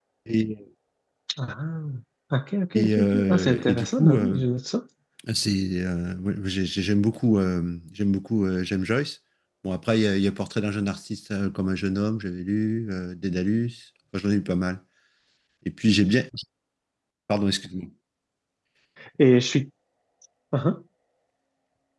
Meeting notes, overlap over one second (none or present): present